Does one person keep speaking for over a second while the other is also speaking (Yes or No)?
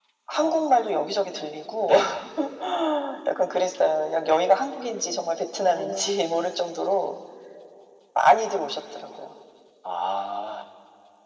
No